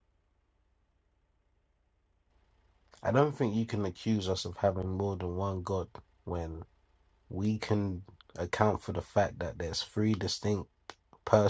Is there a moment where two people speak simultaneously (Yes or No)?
No